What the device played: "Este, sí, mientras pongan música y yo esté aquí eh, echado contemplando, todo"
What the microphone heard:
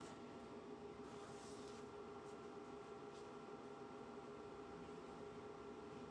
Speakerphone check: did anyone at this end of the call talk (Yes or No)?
No